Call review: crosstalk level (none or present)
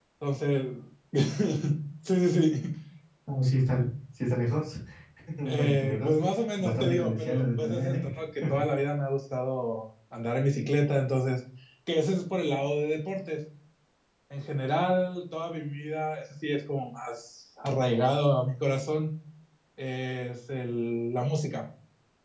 present